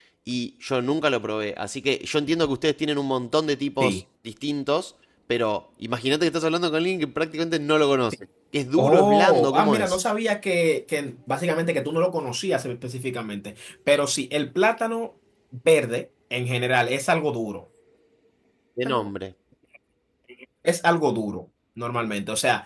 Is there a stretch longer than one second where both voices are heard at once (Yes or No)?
Yes